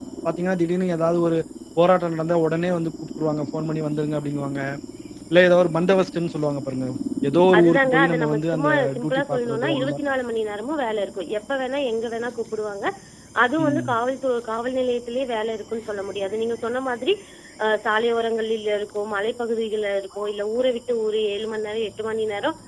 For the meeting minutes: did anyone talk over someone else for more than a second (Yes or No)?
Yes